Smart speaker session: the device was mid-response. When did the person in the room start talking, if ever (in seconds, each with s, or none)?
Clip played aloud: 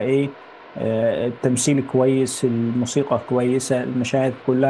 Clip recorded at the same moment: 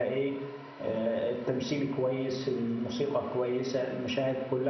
none